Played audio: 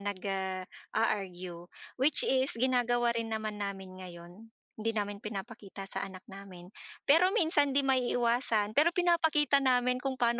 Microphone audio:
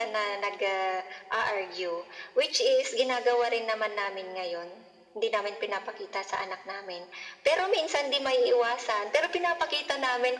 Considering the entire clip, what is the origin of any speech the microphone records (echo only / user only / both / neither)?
echo only